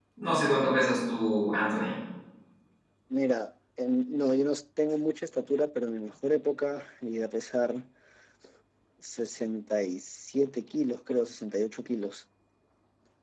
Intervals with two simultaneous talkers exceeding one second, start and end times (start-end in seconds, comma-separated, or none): none